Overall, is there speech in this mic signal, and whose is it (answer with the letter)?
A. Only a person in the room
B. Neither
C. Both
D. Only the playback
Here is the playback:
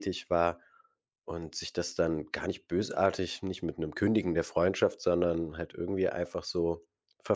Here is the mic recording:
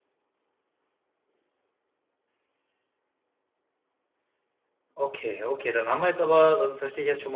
A